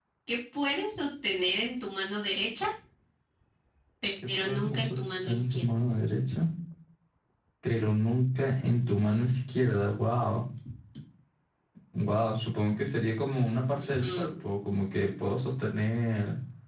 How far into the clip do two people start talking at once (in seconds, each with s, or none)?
4.3 s